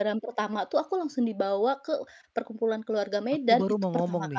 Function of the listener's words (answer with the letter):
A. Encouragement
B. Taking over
B